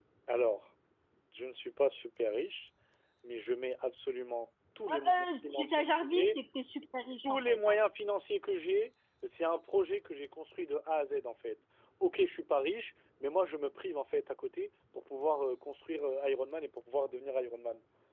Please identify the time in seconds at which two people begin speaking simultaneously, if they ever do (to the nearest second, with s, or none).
5 s